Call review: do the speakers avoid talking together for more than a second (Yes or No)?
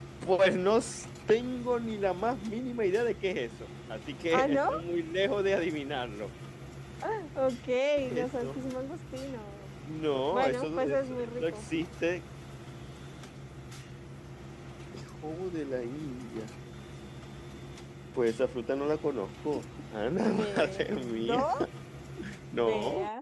No